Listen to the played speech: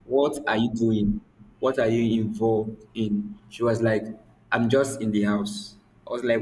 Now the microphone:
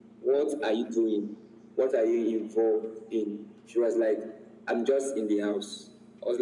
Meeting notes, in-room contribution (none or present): none